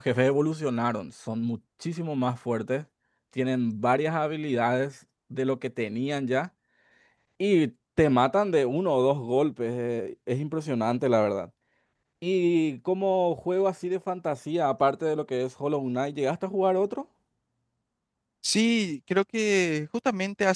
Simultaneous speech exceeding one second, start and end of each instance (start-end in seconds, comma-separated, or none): none